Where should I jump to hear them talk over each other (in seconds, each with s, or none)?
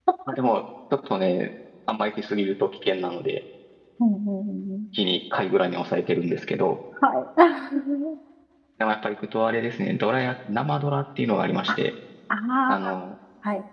none